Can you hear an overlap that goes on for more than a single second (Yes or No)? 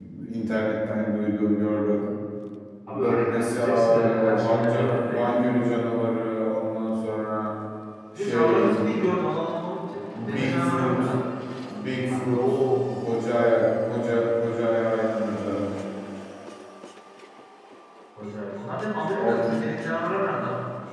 Yes